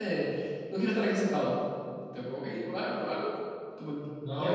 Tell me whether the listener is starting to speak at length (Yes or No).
Yes